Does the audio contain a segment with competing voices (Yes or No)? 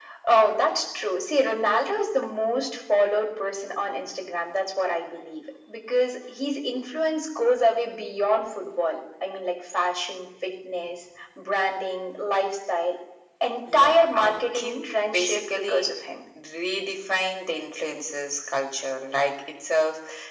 Yes